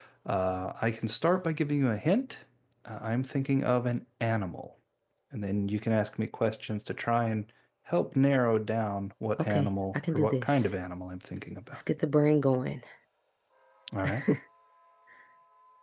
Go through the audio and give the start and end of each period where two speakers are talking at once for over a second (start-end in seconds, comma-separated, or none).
9.4-10.7